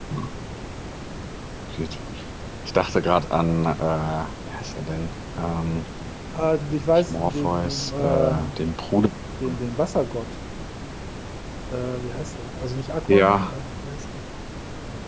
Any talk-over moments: Yes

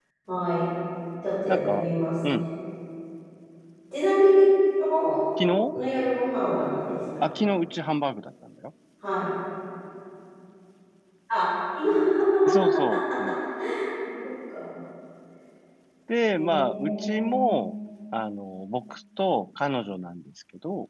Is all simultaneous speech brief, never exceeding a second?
No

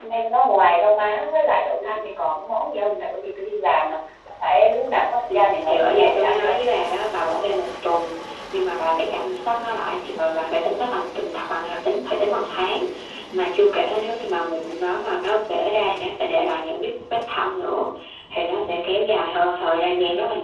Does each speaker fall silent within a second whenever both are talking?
No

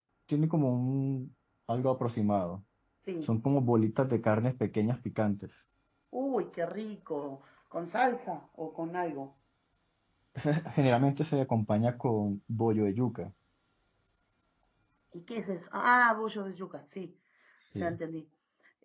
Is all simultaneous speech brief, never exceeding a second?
Yes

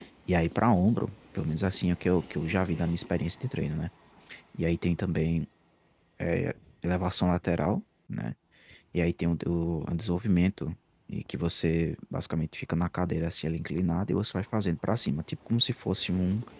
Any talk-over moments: No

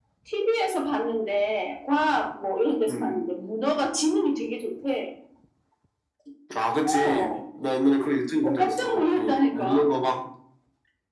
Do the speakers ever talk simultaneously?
Yes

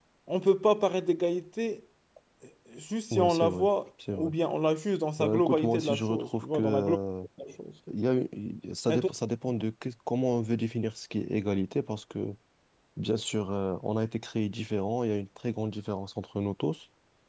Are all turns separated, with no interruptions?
No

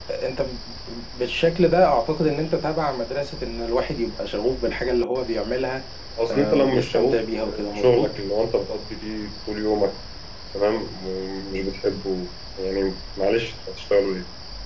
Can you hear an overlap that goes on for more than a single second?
Yes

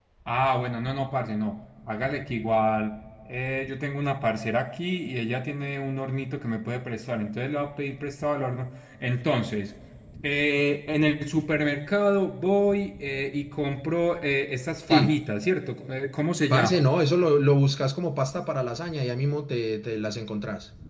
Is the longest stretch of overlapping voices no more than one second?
Yes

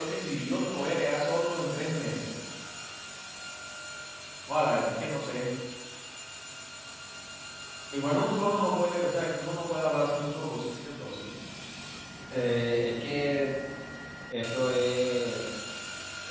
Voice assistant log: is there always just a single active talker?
Yes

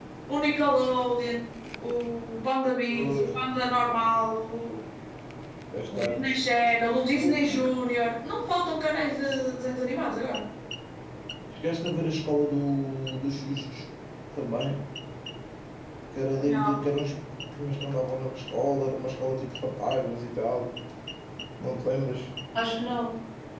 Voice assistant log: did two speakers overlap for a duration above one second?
No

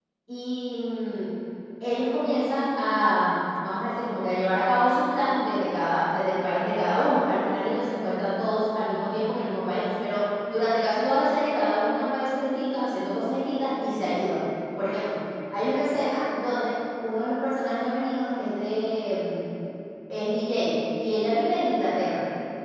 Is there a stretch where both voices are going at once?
No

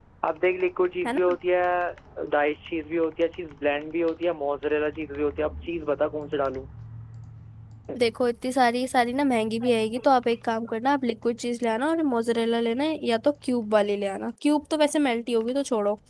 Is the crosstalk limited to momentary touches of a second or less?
Yes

